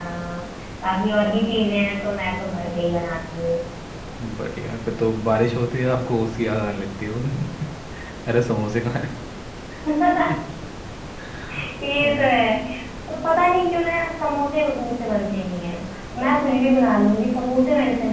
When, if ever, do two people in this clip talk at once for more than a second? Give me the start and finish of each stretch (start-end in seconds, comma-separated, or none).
none